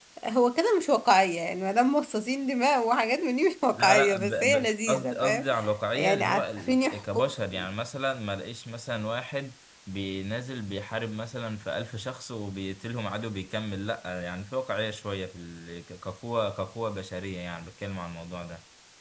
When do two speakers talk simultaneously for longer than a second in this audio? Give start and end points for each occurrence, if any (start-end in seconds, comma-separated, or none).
3.7-5.5, 6.0-7.3